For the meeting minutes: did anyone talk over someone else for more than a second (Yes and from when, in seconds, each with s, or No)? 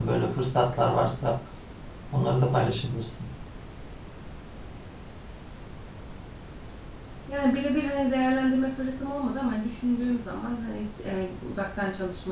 No